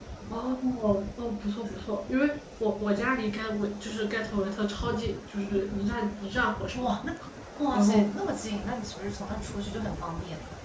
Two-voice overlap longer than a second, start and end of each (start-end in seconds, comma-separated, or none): none